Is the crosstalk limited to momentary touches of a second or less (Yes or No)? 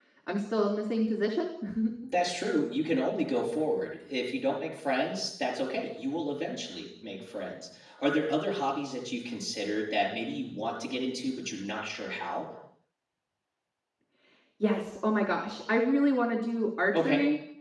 Yes